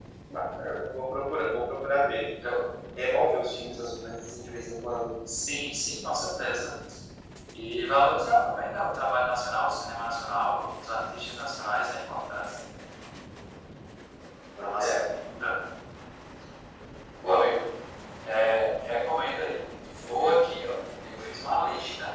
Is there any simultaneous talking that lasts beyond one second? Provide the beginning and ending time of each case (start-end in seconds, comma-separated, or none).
none